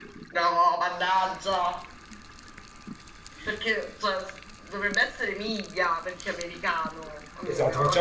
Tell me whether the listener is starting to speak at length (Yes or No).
Yes